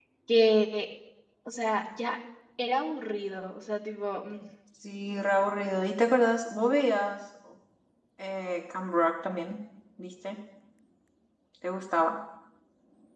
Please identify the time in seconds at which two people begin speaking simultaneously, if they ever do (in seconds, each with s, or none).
none